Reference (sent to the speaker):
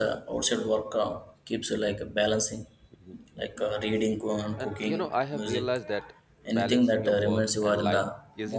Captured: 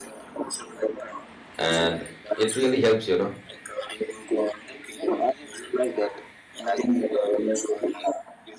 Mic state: both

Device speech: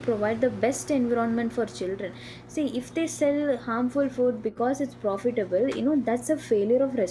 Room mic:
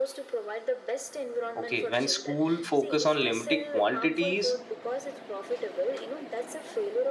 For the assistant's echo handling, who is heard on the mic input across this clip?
both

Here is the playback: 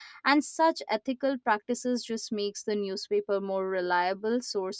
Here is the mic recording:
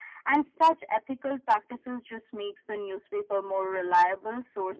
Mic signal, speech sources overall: echo only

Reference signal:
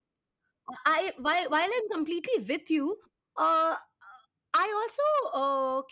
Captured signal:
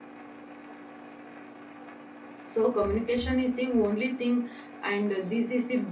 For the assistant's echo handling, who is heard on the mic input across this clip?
user only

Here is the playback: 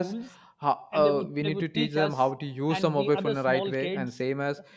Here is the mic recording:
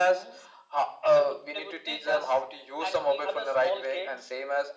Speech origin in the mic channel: echo only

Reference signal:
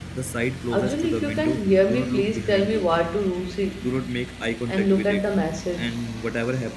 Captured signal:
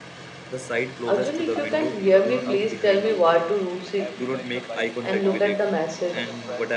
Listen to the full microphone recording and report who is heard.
both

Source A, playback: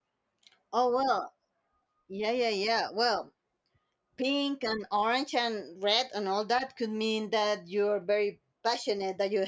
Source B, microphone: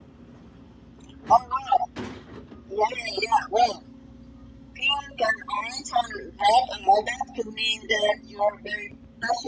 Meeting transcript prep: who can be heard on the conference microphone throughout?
echo only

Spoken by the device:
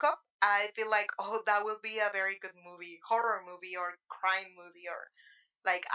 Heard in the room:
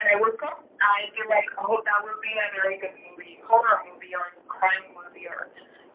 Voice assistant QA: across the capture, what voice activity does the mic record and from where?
echo only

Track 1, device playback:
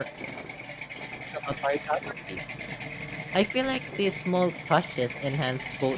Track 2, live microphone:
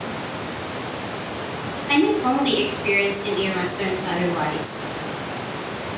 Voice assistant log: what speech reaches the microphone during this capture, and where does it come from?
user only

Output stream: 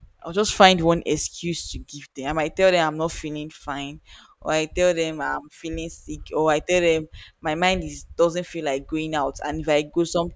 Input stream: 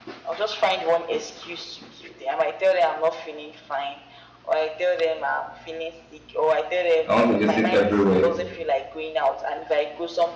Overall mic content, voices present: both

